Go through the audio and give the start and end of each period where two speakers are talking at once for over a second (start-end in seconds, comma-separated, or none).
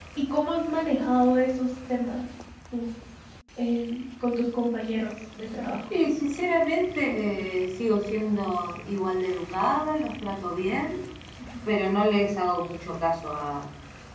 none